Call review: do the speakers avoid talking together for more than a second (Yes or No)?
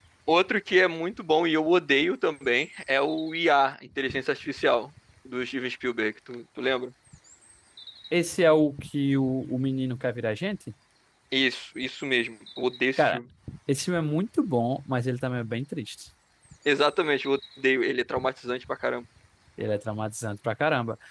Yes